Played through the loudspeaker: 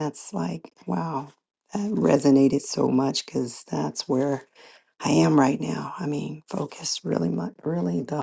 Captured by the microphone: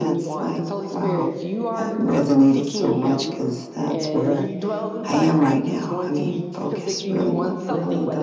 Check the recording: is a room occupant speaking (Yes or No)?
Yes